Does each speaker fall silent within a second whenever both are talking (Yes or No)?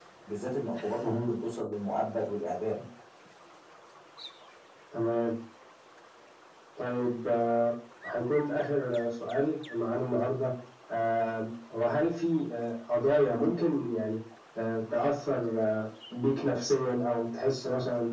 Yes